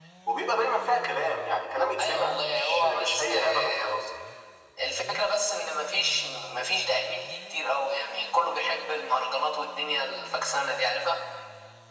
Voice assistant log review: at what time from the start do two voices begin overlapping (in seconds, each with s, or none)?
2.0 s